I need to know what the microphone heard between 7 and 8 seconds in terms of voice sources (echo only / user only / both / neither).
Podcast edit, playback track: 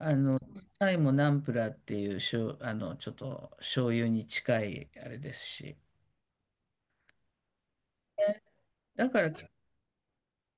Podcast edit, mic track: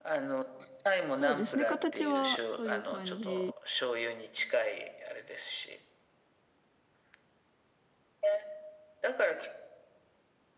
neither